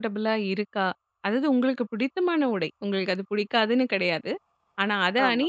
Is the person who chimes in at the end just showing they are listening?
Yes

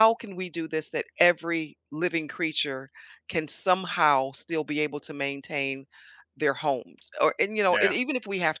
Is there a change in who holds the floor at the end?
No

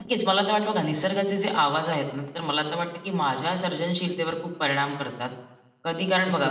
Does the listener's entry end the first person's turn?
No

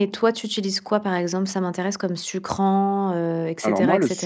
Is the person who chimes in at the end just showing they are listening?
No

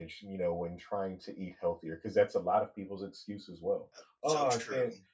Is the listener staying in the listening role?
Yes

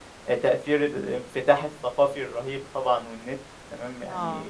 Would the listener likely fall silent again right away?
Yes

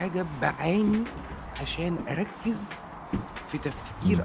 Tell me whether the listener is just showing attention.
Yes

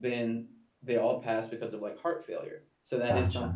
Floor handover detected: No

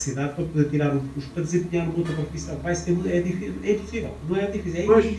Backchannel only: No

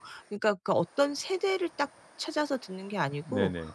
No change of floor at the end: Yes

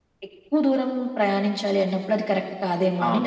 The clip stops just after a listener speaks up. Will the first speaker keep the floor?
No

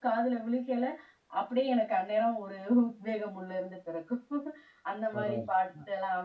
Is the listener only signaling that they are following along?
Yes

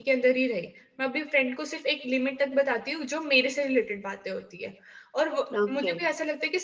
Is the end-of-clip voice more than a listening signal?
No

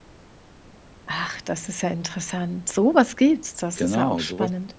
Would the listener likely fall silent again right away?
No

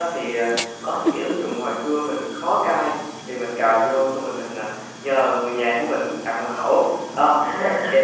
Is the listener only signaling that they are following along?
Yes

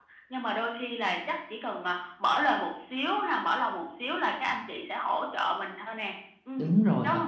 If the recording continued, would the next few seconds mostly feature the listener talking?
Yes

